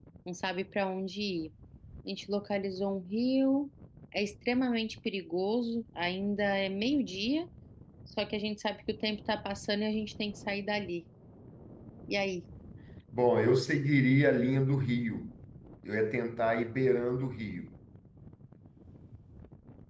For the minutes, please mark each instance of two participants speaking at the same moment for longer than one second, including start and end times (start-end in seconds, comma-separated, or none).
none